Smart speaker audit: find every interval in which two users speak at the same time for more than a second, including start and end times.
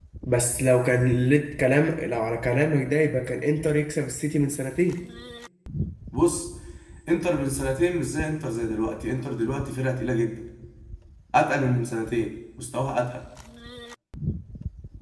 none

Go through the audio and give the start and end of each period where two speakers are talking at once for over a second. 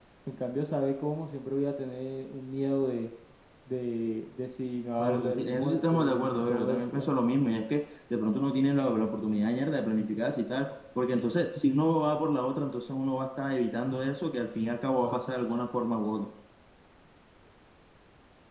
5.0-7.1

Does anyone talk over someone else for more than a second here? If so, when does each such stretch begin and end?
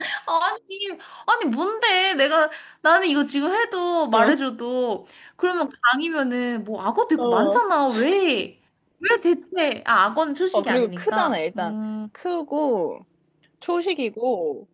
10.5-11.7

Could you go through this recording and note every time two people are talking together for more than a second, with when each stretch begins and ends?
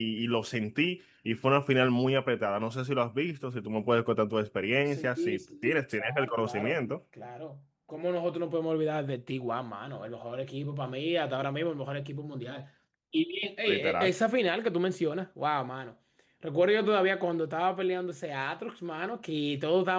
4.9-6.8

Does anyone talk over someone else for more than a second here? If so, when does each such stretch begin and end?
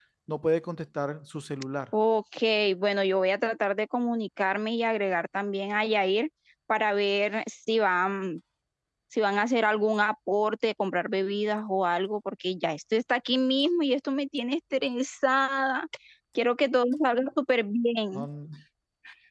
none

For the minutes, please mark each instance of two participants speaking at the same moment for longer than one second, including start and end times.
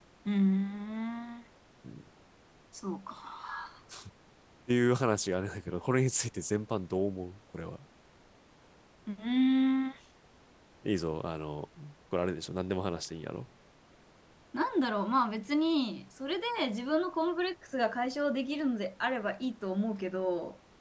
none

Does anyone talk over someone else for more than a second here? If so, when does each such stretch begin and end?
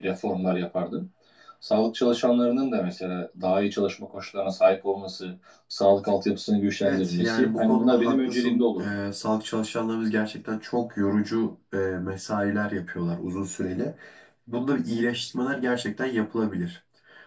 6.8-8.8

